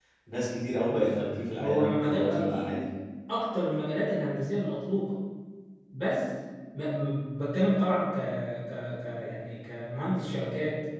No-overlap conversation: No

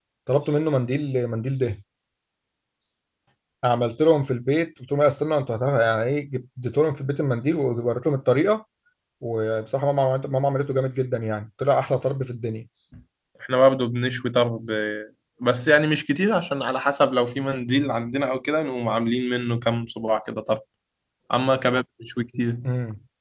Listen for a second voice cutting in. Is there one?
No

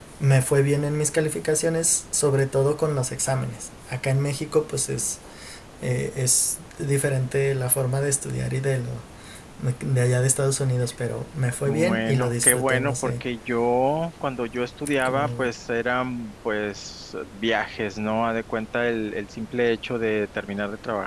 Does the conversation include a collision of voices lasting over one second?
Yes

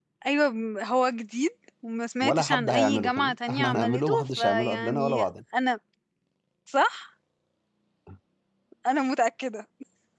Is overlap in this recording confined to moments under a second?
No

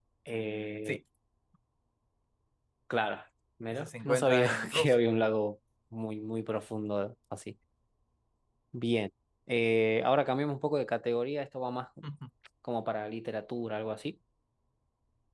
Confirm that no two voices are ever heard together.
No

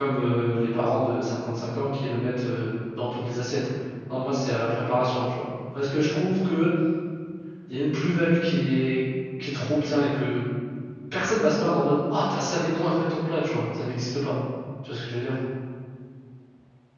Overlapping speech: No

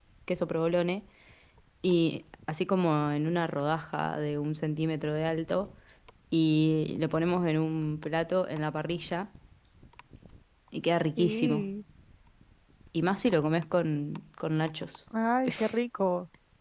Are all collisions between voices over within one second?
Yes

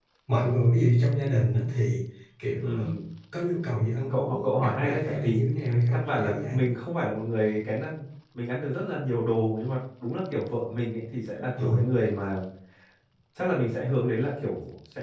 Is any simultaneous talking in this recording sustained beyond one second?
Yes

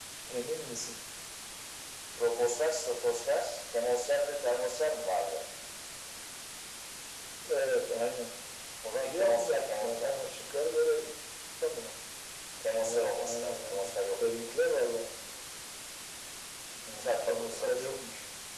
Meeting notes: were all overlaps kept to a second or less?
No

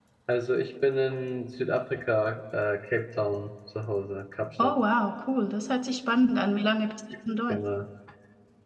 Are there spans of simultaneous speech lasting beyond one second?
No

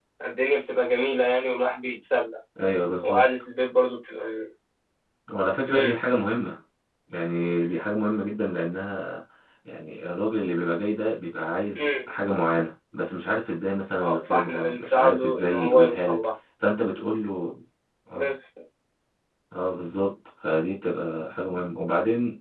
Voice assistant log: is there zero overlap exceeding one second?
No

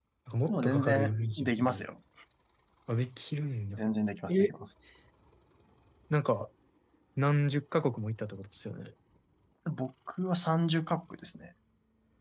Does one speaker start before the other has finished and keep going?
Yes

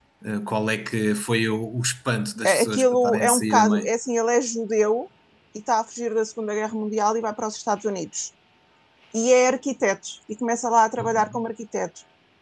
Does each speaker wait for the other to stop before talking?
No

